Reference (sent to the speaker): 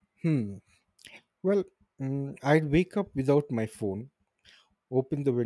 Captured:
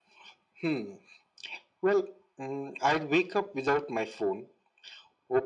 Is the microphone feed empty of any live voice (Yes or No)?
Yes